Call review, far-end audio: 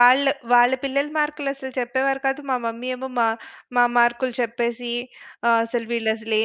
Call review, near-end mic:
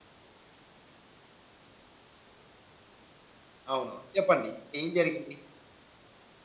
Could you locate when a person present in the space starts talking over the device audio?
4 s

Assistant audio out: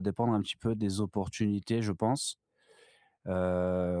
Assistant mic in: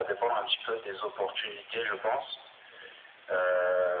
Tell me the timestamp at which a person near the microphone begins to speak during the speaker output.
none

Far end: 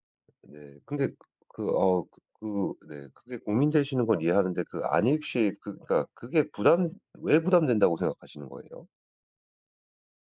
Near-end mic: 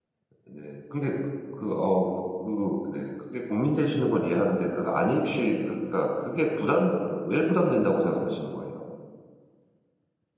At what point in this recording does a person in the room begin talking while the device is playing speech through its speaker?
none

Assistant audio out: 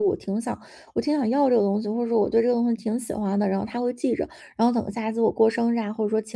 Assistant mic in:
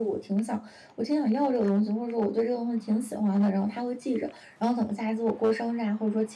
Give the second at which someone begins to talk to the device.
none

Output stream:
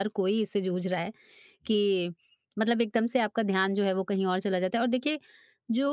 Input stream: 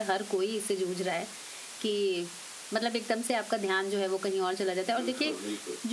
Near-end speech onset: 5 s

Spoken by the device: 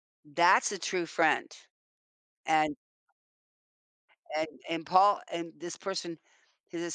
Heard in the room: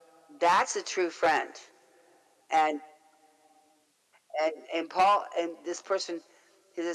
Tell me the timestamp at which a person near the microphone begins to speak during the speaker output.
none

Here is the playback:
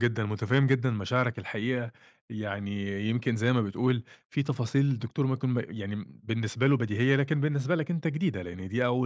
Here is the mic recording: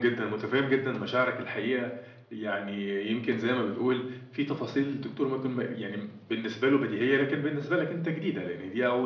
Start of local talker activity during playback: none

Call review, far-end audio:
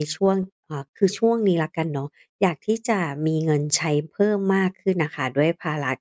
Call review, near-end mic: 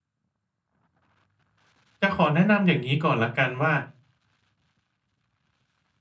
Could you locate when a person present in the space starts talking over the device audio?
2 s

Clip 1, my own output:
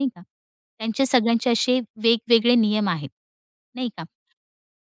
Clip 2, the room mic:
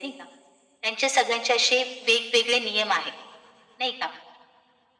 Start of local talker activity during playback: none

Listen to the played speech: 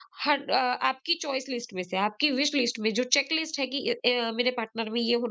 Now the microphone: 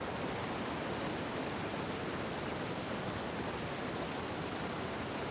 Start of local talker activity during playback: none

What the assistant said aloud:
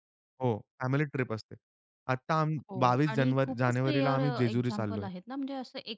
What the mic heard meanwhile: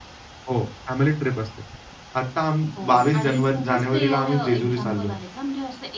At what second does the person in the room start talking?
none

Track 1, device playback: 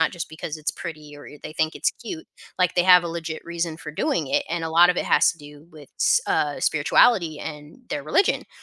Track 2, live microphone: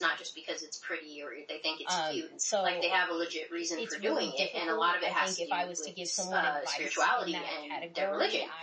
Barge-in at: 2 s

